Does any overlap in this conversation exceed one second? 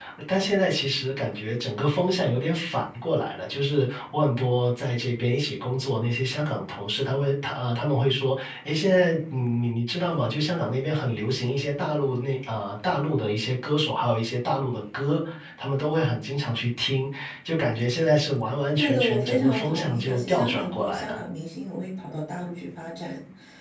Yes, from 18.7 s

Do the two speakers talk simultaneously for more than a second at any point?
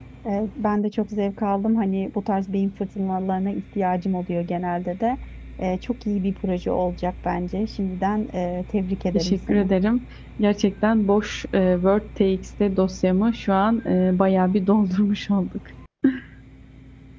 No

